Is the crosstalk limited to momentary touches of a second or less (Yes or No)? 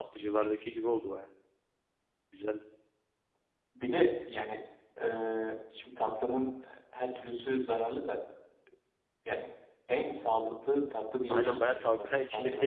No